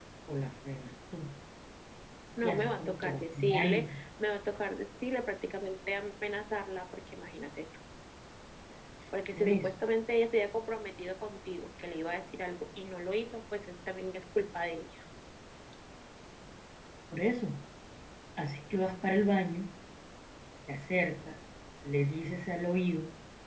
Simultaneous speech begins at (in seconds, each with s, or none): 2.4 s